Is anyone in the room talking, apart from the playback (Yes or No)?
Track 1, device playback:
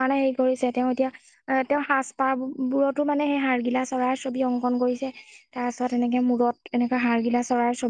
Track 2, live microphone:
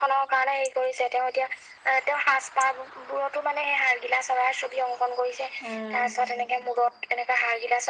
Yes